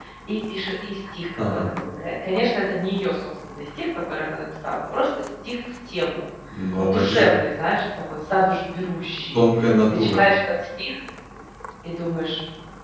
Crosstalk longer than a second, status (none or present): none